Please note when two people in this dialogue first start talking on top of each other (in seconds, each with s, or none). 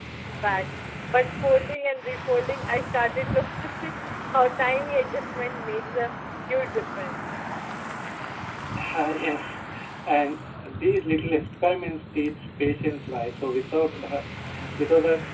none